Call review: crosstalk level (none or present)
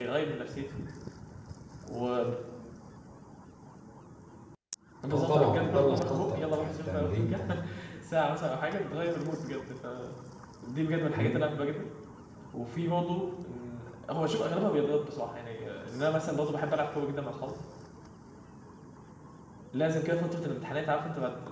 present